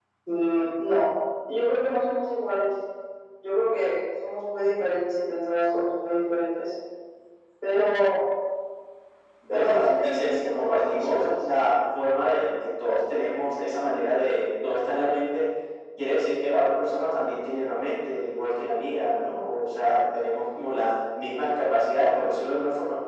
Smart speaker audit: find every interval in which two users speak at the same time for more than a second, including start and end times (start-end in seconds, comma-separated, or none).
9.5-11.3